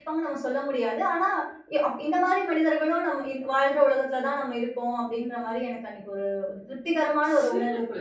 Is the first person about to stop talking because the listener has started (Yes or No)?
Yes